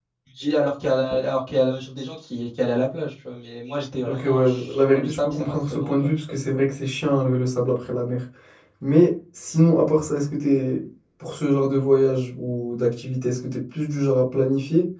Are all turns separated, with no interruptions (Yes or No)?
No